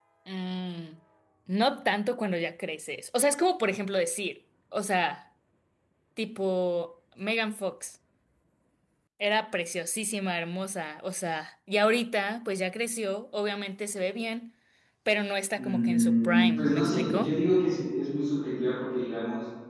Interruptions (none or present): present